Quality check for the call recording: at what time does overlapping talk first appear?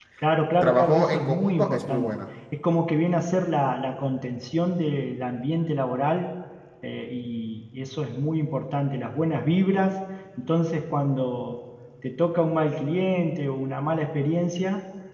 0.6 s

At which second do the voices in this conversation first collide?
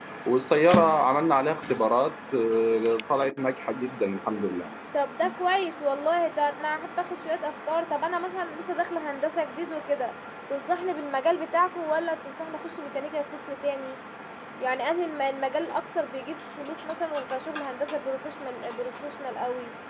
none

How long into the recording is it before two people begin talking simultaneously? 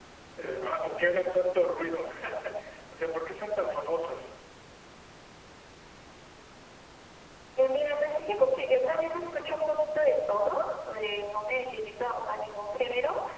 none

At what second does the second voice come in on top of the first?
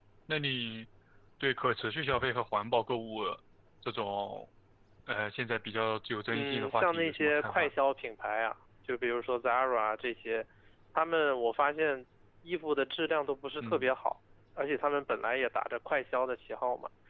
6.3 s

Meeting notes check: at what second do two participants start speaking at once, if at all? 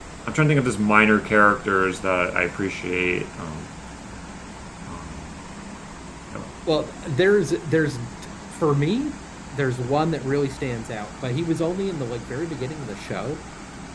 none

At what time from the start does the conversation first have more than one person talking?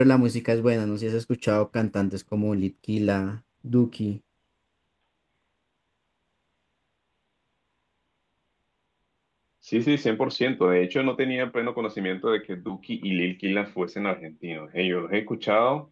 none

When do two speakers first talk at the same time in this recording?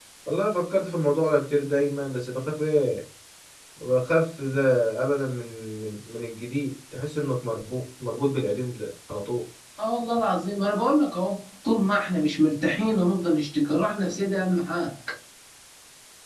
none

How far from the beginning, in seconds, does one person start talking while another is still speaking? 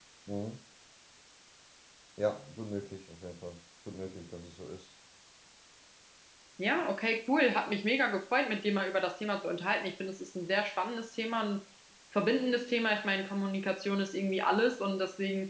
none

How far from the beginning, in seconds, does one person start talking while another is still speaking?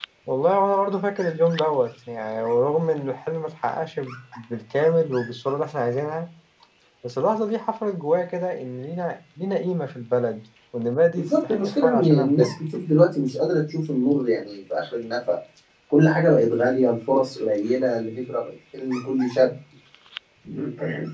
11.2 s

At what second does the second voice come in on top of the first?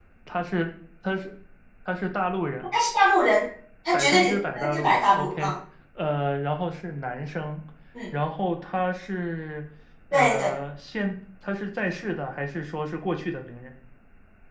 3.9 s

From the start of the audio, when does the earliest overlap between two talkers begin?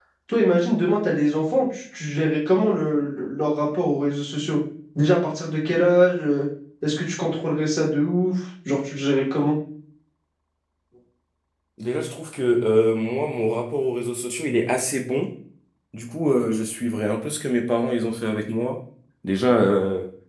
none

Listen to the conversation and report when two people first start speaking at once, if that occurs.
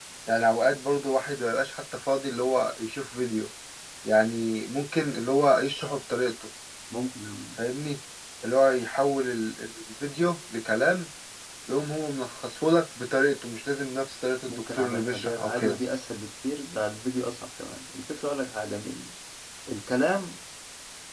14.5 s

